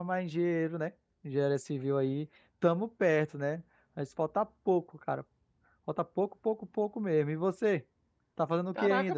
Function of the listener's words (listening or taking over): taking over